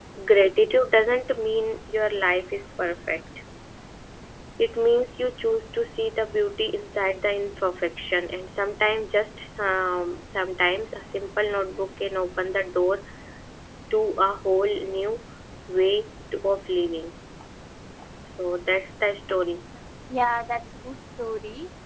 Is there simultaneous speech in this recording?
No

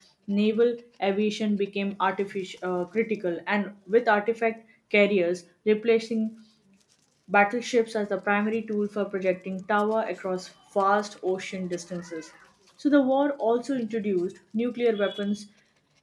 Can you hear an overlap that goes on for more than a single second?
No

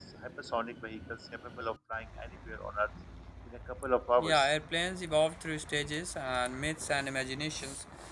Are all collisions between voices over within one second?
Yes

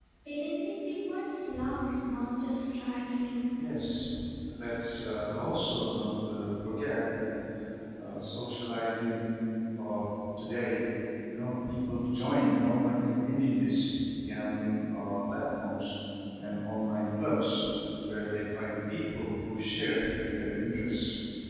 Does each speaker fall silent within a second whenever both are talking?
Yes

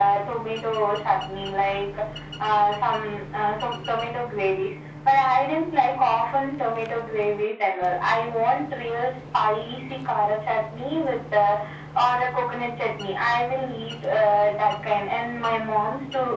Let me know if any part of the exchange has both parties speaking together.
No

